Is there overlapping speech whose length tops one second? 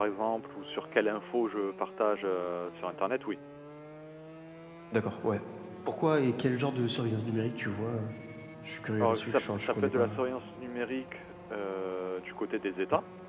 Yes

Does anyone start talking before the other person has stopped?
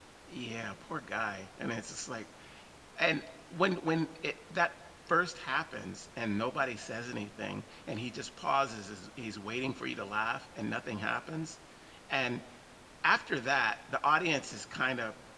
No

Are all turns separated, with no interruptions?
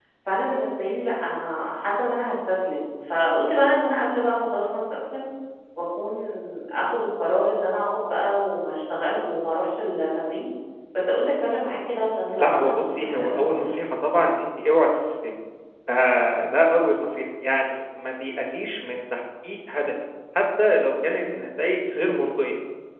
No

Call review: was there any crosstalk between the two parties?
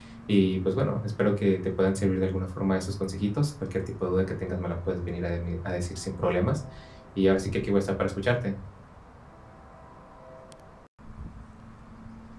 No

